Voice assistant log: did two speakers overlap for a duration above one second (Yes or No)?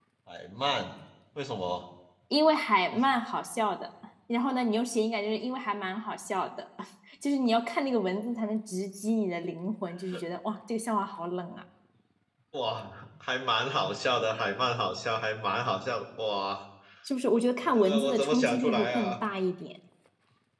Yes